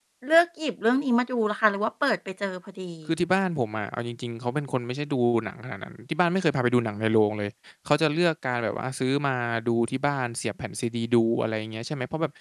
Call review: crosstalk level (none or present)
none